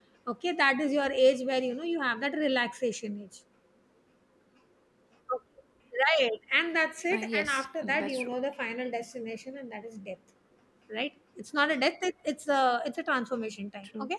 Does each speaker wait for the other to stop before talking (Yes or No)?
No